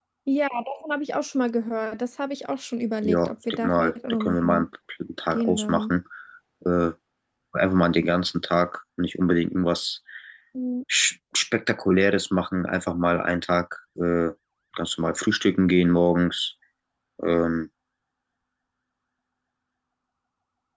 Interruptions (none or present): present